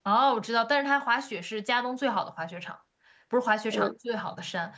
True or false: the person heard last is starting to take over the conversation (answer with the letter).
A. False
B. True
A